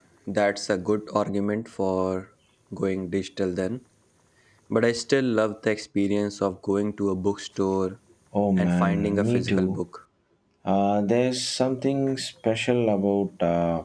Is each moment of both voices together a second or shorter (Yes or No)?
No